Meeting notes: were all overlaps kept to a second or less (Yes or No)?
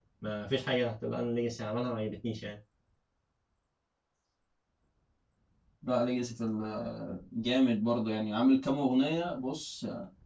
Yes